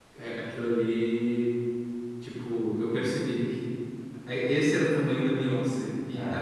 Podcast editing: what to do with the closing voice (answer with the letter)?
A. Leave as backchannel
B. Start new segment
A